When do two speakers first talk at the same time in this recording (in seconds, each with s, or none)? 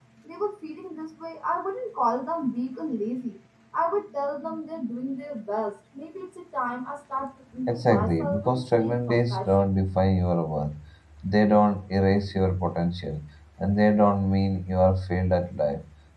7.7 s